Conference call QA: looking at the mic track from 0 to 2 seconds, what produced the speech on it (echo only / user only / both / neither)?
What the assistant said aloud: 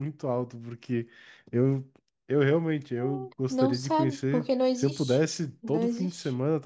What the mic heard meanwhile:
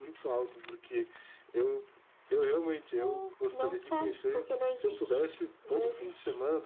echo only